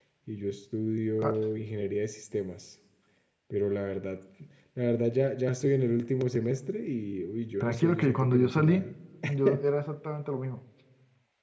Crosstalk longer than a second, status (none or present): present